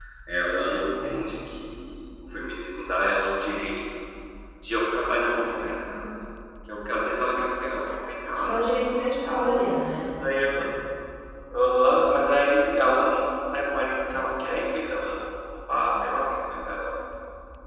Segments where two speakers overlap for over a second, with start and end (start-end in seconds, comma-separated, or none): 8.3-9.6